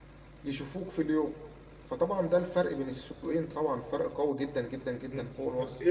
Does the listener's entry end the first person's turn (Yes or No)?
Yes